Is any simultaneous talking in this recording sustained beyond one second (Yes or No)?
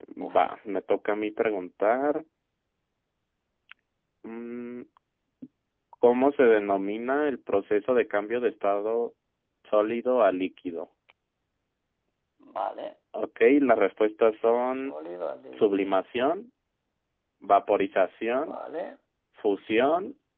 No